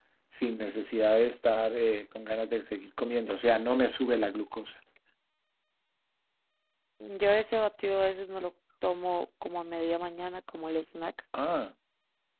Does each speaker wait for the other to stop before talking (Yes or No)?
Yes